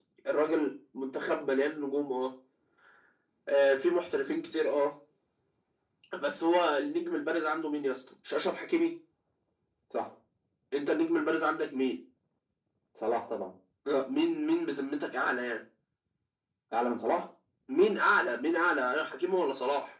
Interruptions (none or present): none